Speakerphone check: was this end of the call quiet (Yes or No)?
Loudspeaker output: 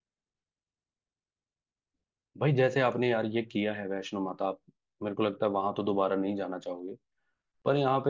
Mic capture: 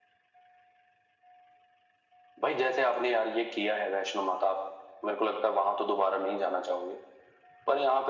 Yes